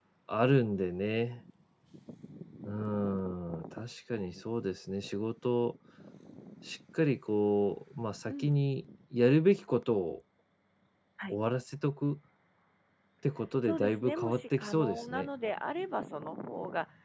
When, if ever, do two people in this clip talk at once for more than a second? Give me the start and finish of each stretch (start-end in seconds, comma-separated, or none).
13.6-15.3